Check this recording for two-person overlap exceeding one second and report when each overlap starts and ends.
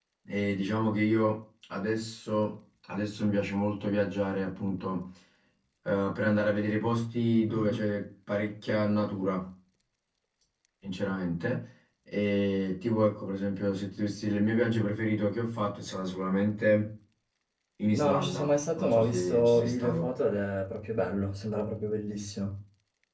17.9-20.1

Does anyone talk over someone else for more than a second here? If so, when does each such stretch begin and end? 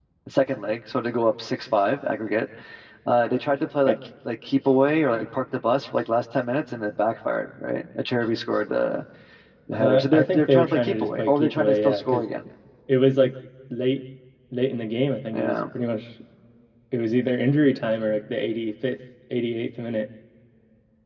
9.7-12.3

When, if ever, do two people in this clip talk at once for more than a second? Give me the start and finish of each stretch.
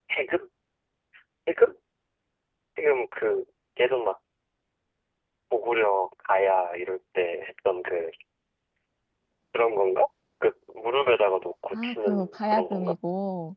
11.7-12.9

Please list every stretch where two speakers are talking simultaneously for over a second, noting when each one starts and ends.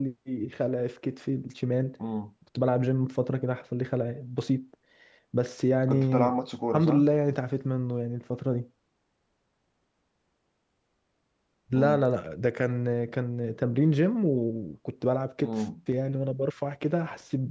none

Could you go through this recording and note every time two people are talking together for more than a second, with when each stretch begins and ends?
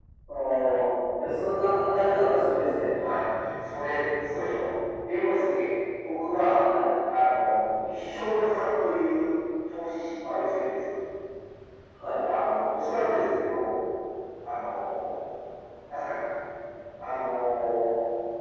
none

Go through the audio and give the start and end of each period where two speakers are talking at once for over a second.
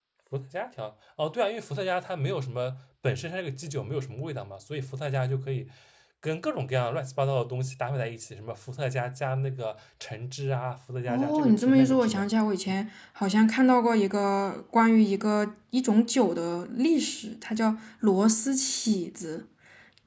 11.1-12.3

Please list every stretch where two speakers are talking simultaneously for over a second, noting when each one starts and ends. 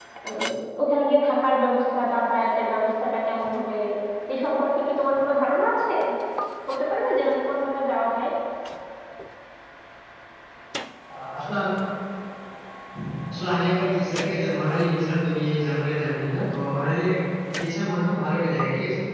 none

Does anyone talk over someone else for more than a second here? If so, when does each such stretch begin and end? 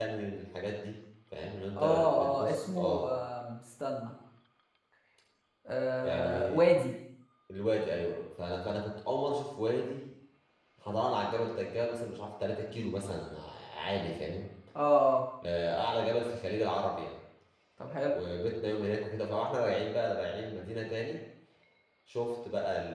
1.8-3.0

